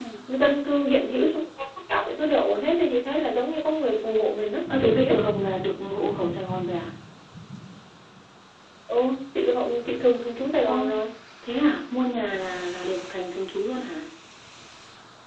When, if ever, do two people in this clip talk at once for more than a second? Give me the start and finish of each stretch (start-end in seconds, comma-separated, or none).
none